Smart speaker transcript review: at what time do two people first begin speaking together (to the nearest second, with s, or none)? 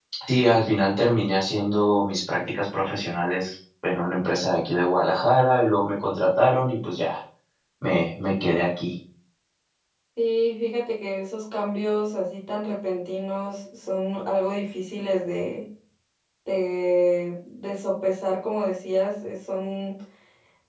none